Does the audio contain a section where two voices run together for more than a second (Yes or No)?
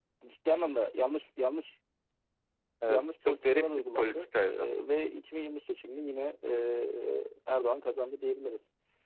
Yes